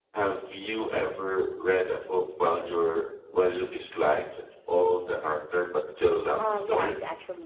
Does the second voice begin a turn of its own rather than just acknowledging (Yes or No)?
Yes